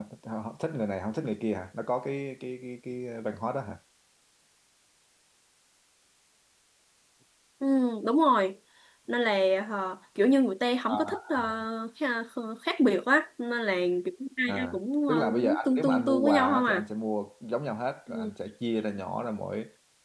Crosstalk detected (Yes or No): Yes